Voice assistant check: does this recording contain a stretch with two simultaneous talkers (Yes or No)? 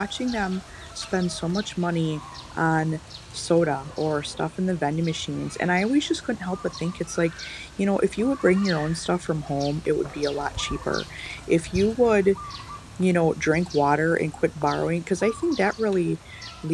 No